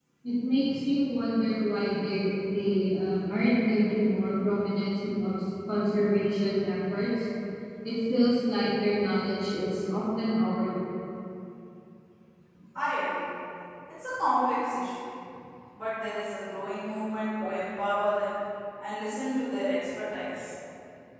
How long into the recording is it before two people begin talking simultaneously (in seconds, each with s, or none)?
none